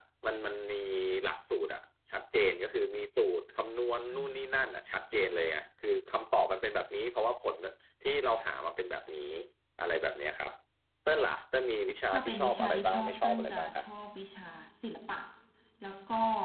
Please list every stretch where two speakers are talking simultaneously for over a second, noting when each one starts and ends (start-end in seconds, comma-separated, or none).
12.1-13.8